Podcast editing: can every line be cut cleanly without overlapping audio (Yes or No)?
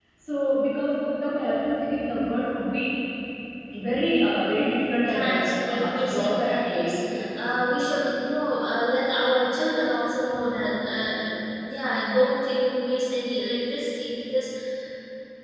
No